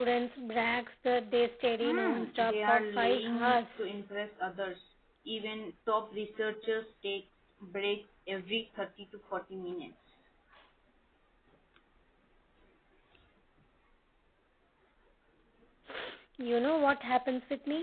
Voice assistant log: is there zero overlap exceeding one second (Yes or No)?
No